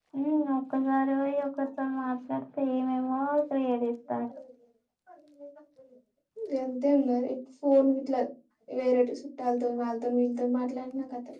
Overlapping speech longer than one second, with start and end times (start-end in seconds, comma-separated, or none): none